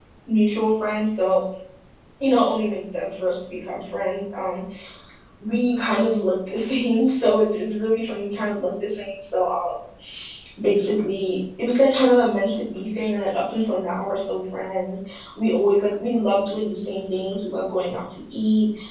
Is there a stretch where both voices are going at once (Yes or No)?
No